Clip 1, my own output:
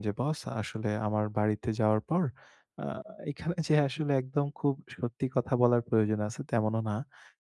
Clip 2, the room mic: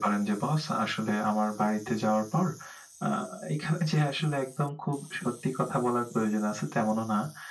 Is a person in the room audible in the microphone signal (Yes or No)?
No